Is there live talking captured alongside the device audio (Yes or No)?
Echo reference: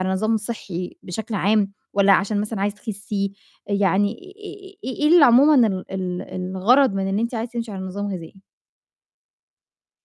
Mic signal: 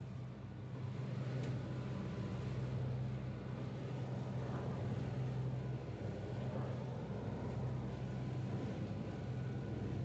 No